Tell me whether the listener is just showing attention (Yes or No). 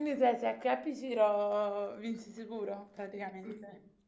No